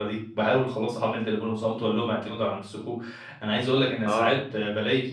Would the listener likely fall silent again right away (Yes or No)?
Yes